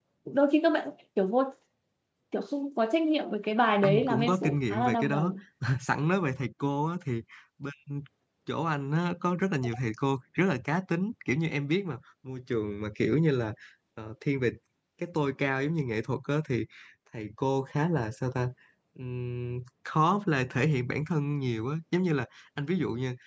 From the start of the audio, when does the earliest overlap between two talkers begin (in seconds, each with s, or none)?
3.8 s